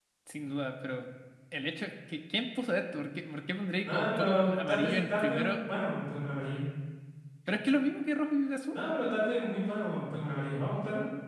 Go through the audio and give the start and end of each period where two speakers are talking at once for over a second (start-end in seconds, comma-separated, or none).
3.8-5.6